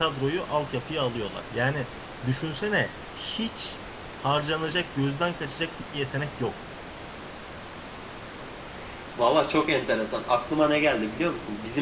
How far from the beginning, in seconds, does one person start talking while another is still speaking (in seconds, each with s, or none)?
none